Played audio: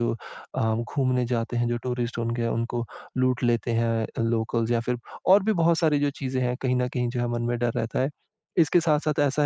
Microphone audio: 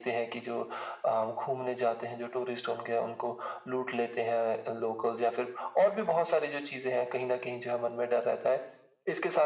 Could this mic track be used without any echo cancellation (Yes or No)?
No